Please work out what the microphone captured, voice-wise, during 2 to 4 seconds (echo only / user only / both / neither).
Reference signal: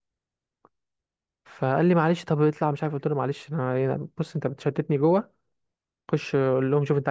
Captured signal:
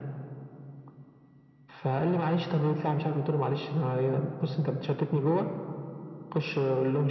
echo only